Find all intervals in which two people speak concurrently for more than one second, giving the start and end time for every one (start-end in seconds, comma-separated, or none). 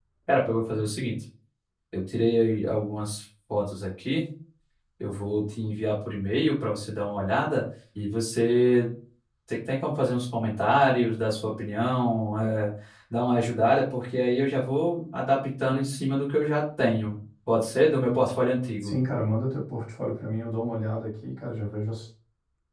none